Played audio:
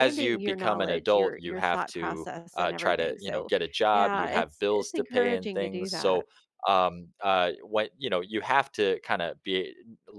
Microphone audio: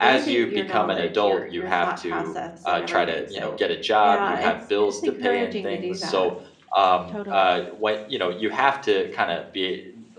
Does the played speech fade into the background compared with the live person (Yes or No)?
No